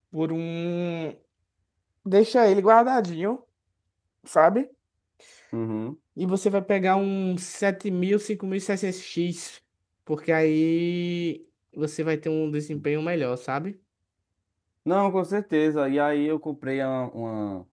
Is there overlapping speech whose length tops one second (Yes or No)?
No